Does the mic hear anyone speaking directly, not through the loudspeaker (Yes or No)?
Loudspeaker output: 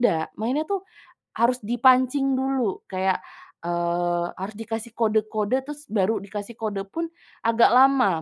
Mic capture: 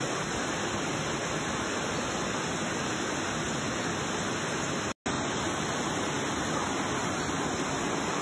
No